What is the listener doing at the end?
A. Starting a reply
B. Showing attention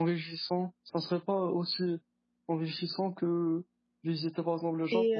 A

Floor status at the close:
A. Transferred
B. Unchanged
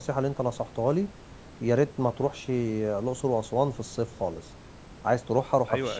A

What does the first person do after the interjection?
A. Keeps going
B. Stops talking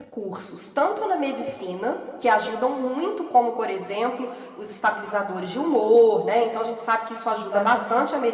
A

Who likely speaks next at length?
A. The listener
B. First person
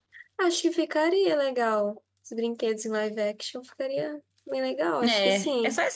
A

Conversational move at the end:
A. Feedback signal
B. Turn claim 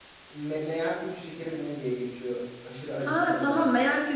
B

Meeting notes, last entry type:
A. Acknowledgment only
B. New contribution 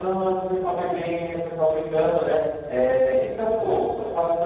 A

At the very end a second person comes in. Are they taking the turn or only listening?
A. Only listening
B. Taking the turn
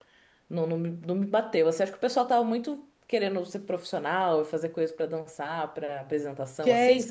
B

